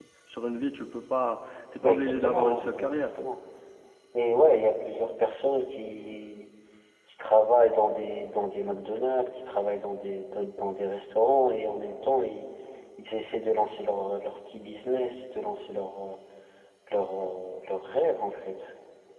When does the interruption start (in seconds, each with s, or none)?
1.8 s